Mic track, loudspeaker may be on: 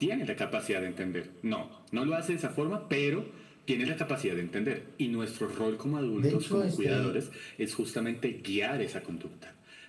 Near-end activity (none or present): present